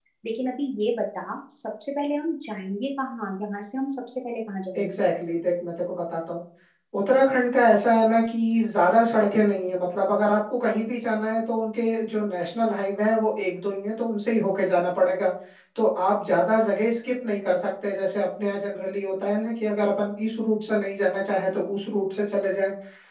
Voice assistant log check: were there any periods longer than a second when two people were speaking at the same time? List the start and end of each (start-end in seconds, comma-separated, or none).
none